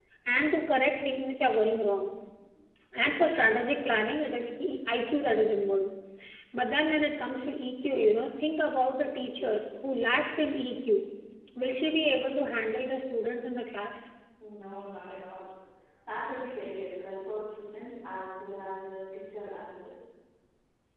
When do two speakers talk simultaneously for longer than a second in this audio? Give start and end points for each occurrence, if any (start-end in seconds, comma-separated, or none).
none